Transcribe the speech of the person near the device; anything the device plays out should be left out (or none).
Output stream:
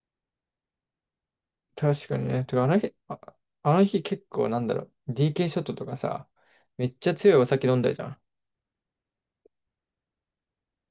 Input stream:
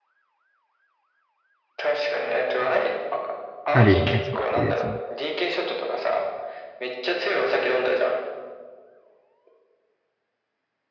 あるよね、確実に。